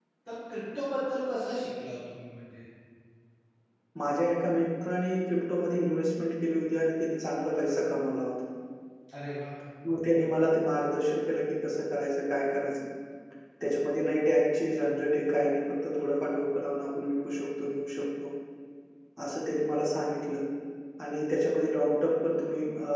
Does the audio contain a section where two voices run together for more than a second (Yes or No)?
No